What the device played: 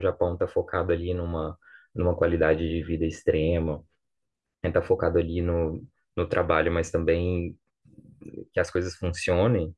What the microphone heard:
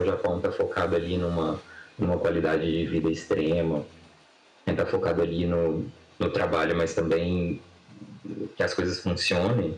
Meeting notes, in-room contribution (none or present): none